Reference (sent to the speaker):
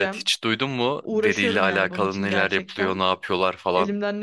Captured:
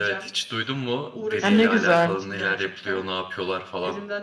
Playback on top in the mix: No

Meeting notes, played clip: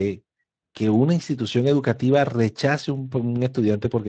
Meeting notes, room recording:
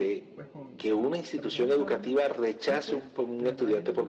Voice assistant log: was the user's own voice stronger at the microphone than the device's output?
No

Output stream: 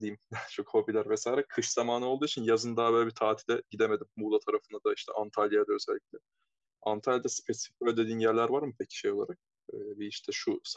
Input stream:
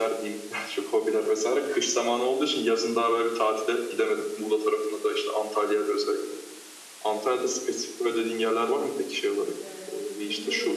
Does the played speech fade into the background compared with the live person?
No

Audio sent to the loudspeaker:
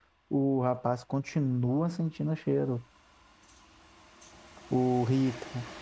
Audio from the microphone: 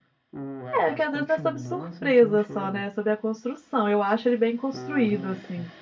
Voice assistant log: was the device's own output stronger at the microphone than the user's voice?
No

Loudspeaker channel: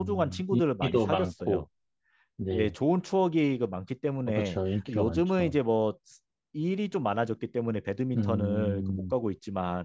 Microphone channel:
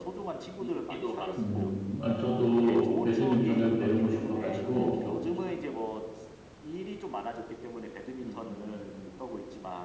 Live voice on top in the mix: Yes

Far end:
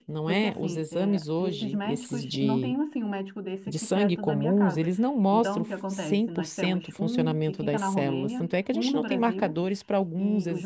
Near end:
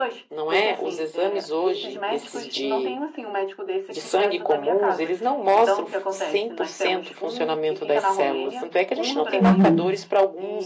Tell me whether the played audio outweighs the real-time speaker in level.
No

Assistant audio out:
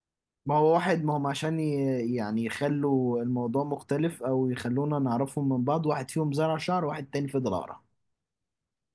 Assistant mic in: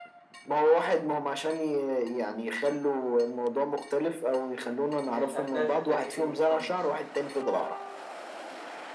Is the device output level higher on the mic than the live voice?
Yes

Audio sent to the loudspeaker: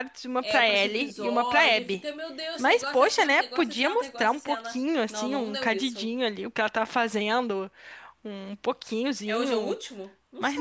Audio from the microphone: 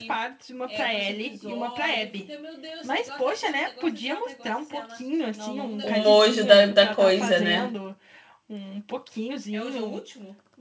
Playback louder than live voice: No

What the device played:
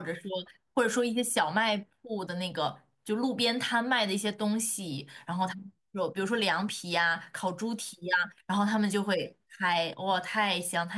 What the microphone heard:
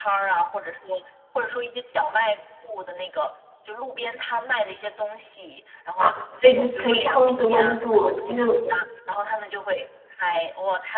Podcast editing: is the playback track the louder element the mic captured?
No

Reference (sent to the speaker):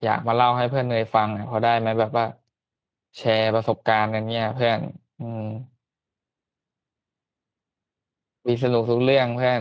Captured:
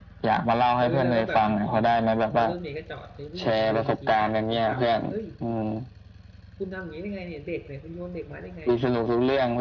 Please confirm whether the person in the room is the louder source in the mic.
No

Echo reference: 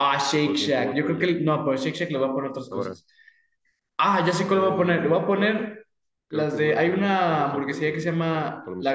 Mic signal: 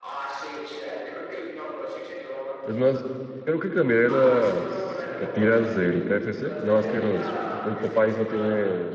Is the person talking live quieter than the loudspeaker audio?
No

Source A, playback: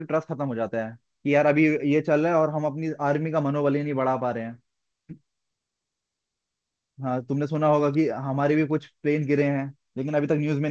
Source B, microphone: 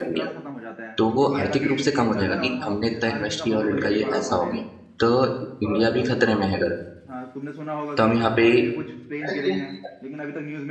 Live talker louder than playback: Yes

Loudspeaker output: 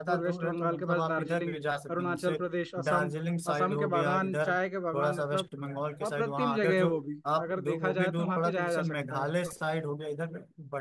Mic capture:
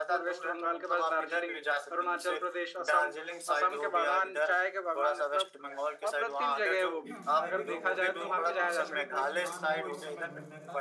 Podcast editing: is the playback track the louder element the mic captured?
Yes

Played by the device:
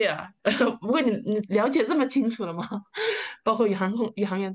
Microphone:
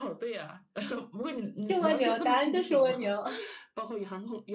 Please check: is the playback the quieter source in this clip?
Yes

